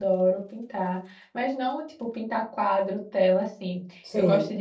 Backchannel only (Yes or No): Yes